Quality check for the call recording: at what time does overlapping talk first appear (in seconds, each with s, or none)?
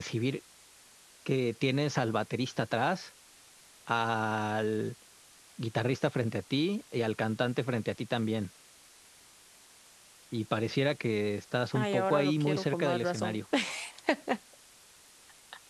11.7 s